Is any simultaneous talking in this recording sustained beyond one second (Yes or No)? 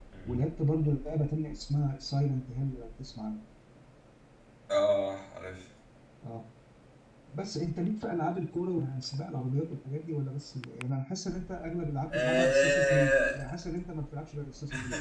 Yes